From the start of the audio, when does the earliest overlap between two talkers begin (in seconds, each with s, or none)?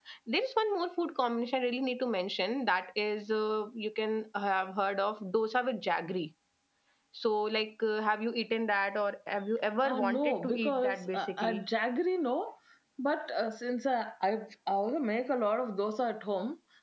9.8 s